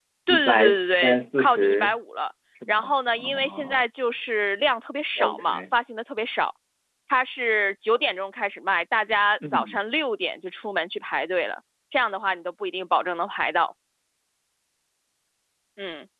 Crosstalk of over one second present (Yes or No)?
Yes